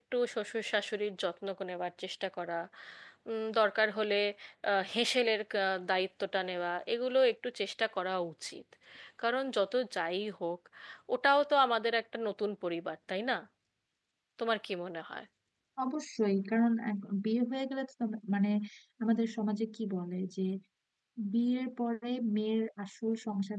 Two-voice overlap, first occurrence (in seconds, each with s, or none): none